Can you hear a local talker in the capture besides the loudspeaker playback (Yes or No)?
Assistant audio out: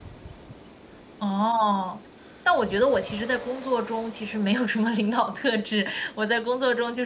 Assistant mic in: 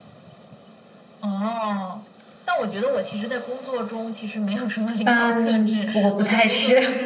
Yes